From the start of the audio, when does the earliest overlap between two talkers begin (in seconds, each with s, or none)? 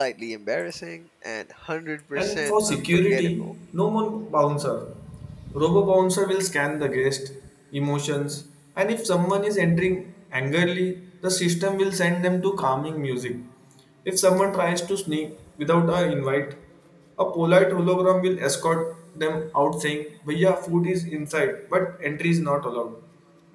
2.2 s